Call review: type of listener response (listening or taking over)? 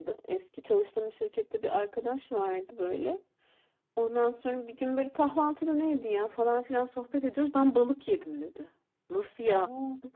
listening